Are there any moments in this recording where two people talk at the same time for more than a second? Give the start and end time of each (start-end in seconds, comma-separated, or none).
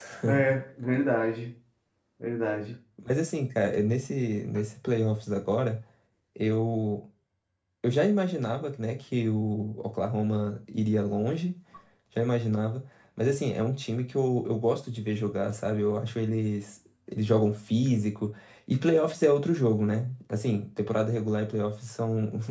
none